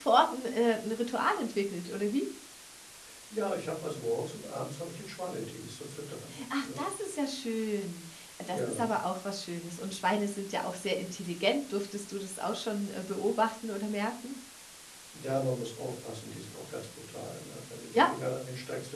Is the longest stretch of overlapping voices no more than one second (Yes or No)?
Yes